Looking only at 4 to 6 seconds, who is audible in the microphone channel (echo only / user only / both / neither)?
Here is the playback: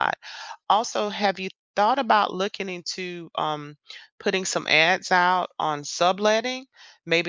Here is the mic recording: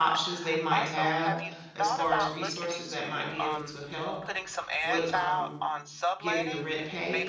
both